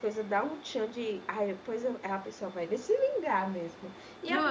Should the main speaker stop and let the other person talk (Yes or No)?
No